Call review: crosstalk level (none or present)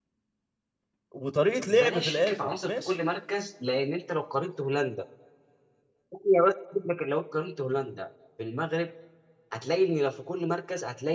present